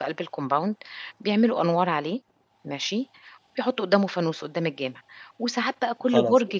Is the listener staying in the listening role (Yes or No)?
Yes